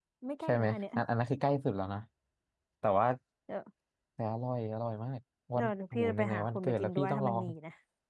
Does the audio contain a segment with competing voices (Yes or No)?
Yes